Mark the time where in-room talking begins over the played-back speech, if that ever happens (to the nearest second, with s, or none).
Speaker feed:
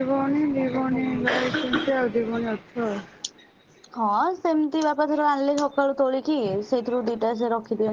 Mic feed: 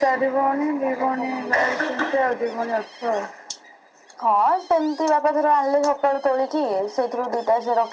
none